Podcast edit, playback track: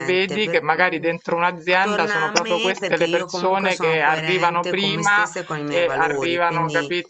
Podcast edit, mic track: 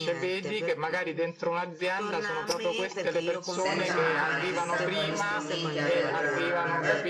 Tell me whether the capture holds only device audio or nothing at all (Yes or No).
No